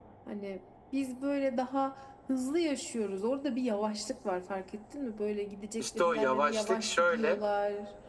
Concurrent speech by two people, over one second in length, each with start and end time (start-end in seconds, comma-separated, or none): 5.8-7.4